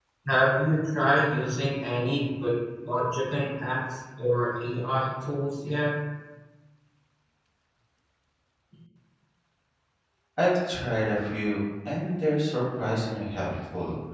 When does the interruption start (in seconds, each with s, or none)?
none